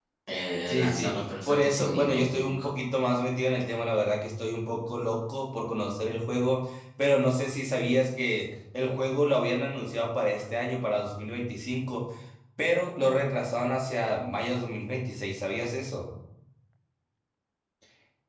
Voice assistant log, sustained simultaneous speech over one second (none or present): present